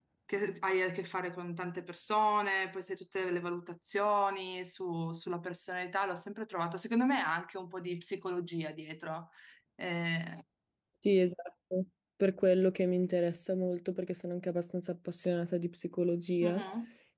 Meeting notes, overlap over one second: none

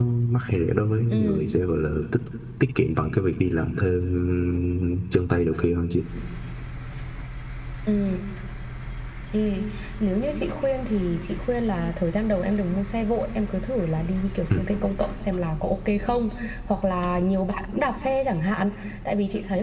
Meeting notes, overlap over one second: none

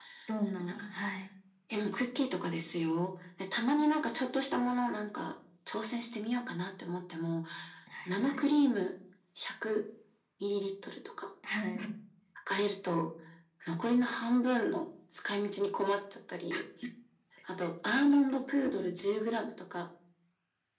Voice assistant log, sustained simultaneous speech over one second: none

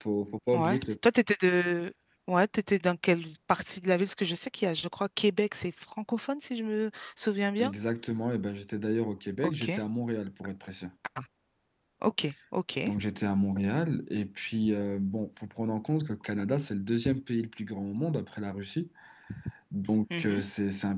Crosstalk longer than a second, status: none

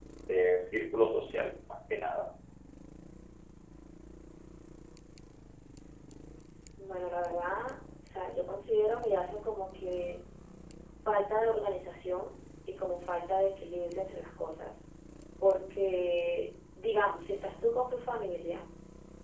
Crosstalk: none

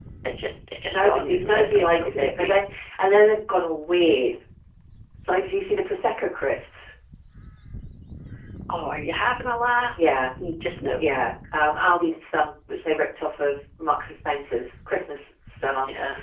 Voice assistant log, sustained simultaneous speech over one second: present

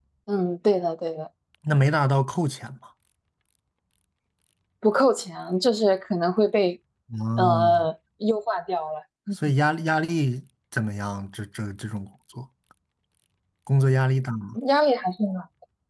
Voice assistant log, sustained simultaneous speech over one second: none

